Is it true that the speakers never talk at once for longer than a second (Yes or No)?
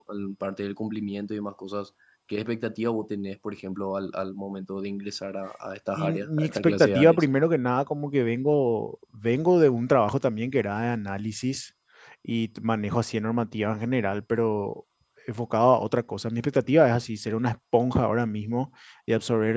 No